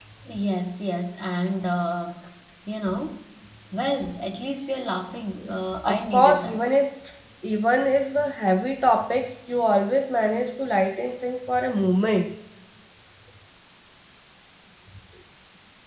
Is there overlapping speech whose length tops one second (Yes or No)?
Yes